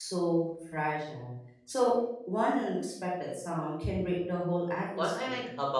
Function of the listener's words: taking over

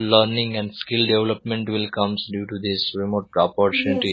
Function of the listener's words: listening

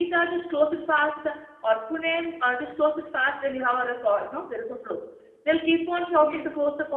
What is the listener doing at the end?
listening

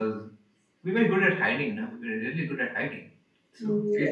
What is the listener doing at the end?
taking over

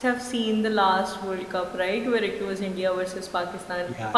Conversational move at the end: listening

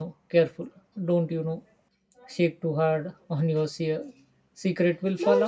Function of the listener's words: taking over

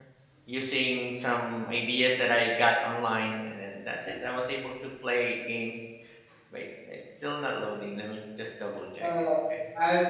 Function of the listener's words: taking over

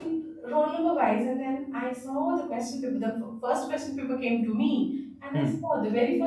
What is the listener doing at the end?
listening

